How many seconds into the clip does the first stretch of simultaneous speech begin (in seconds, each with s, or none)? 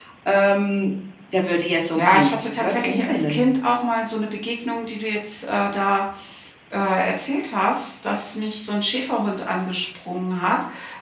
1.9 s